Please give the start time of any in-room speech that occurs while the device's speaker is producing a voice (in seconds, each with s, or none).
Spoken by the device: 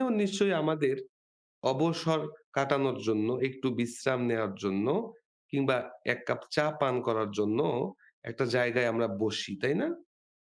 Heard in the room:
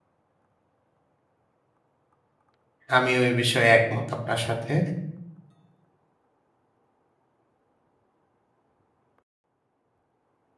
3.0 s